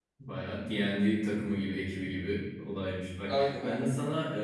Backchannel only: Yes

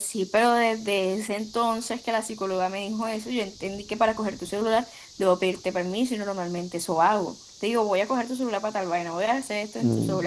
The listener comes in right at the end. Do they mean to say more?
Yes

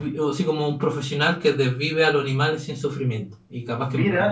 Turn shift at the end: Yes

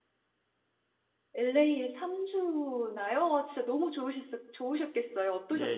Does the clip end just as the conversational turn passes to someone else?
Yes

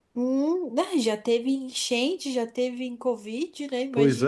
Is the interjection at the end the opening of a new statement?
Yes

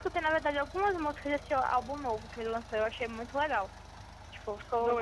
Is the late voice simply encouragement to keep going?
Yes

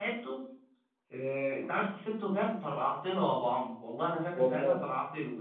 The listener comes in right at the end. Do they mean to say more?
No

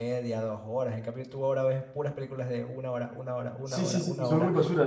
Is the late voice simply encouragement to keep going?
No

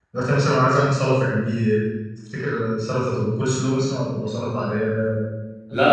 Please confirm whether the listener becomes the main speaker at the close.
Yes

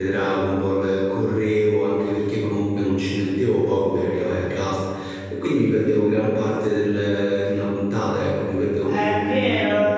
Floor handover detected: Yes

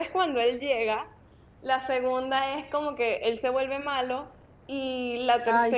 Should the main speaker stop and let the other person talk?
No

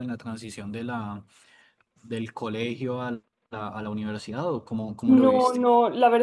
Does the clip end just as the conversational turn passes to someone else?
Yes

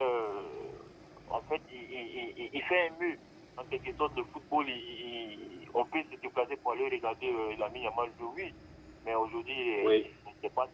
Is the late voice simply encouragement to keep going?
Yes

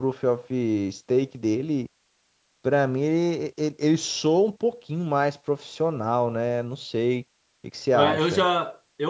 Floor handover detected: Yes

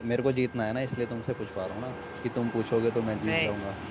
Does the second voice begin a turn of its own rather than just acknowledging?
Yes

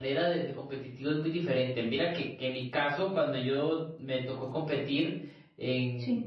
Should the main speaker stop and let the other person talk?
No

